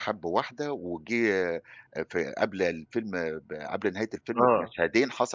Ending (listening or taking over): listening